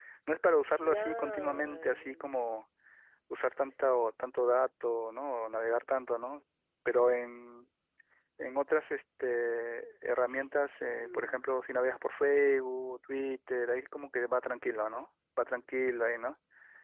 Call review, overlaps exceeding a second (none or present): present